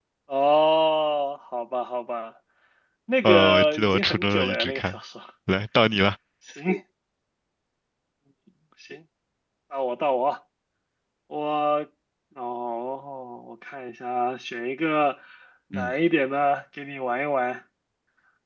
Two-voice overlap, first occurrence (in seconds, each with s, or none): 3.2 s